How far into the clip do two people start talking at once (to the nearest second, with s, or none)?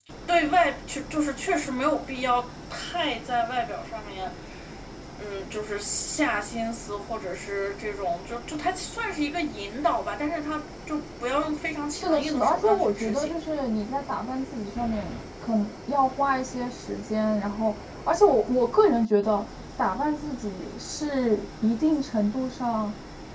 12 s